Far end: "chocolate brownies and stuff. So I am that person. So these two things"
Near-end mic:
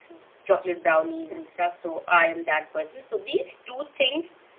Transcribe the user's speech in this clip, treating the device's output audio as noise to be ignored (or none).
none